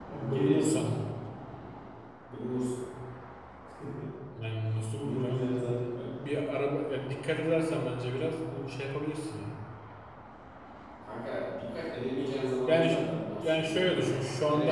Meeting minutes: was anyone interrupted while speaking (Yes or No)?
Yes